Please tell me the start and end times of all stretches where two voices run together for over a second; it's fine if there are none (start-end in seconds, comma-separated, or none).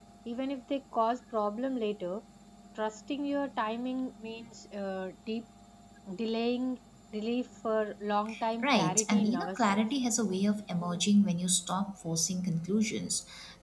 8.6-9.8